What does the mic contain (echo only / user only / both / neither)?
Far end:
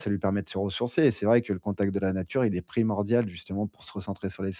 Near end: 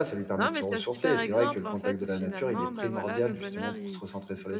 both